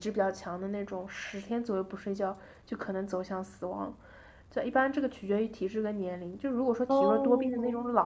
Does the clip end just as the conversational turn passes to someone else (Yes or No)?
No